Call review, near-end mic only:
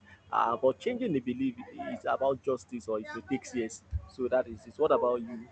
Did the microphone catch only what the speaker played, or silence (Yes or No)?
No